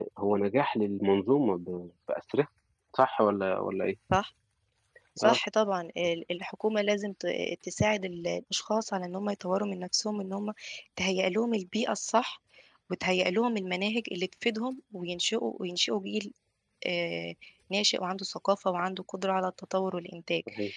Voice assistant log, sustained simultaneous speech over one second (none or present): none